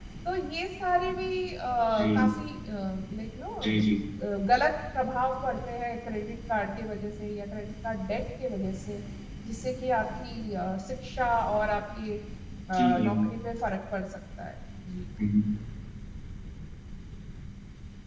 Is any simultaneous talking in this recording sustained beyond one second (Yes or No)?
No